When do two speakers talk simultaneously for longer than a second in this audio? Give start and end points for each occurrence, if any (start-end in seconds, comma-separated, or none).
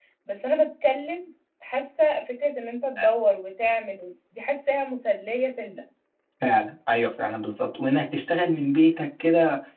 none